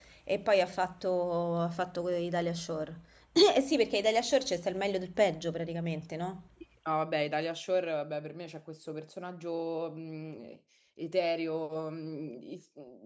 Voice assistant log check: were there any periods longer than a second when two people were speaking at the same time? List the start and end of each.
none

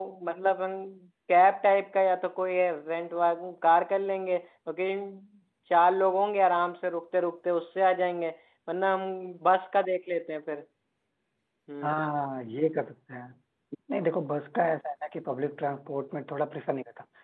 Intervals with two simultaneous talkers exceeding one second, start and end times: none

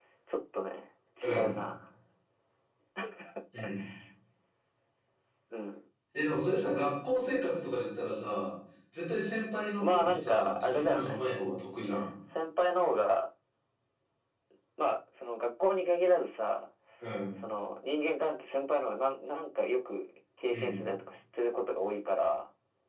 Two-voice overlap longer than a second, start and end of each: 9.8-11.2

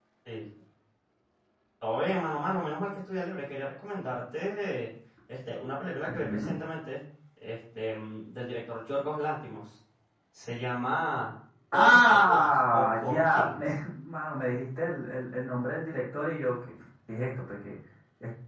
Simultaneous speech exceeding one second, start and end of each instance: 11.8-13.6

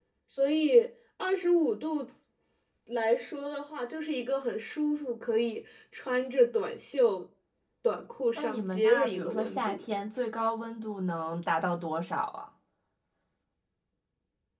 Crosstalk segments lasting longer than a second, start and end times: 8.3-9.8

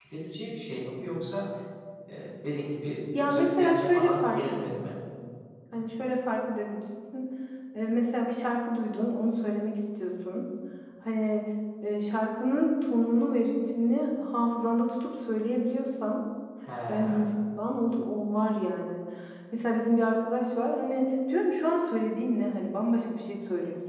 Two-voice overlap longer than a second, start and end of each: 3.2-4.9

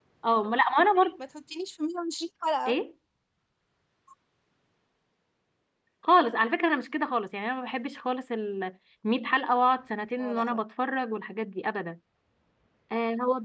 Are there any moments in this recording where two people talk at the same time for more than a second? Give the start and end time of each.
none

